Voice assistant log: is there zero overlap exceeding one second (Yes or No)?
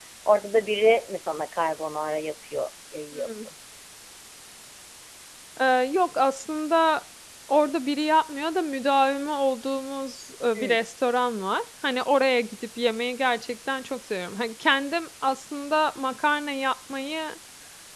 Yes